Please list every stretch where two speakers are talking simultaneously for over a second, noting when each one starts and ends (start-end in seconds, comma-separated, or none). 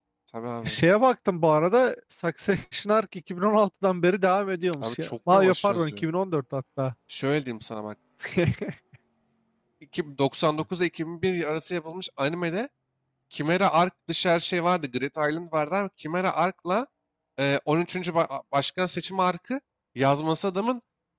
4.8-6.0